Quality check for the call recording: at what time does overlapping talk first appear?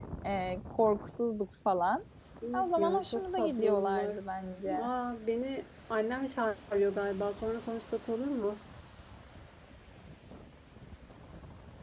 2.5 s

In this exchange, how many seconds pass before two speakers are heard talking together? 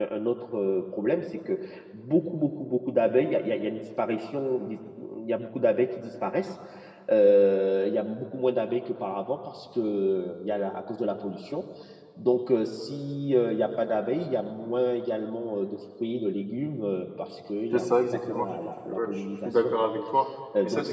17.7 s

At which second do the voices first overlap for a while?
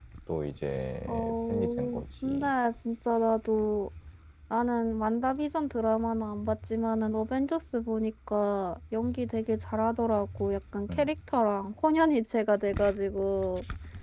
1.1 s

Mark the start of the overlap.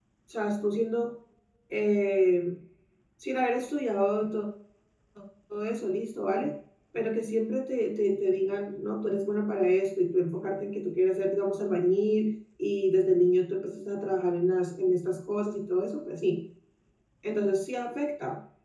none

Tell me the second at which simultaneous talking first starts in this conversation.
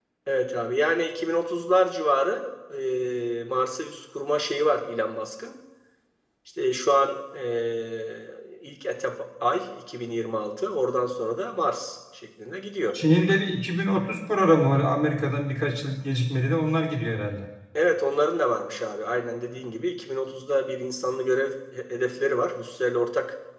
none

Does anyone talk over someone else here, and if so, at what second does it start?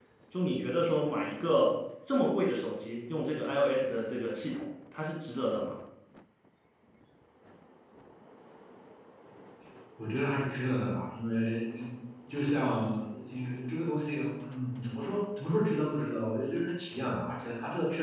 none

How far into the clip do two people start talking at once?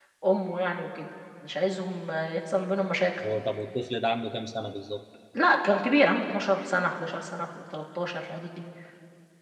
none

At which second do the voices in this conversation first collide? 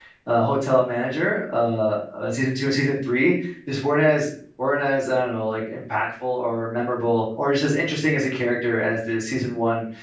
none

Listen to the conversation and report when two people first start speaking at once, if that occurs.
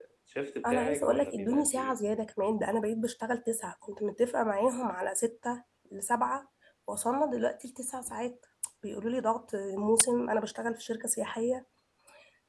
0.6 s

